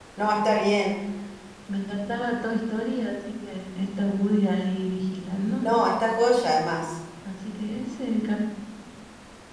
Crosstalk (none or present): none